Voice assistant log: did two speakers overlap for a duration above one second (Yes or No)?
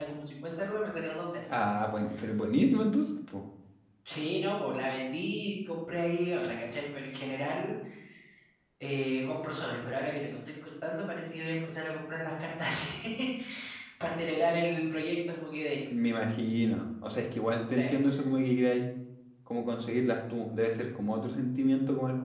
No